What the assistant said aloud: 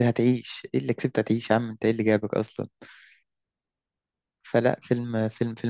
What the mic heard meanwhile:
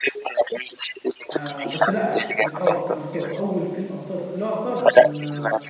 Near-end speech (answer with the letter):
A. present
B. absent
A